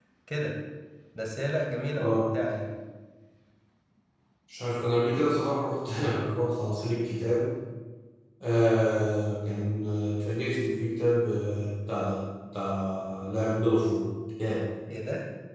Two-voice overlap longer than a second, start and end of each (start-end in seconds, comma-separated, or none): none